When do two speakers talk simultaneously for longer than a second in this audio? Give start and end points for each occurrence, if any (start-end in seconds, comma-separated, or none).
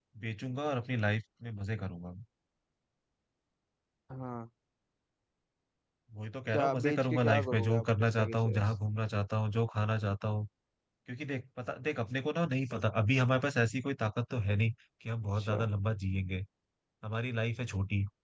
6.5-8.6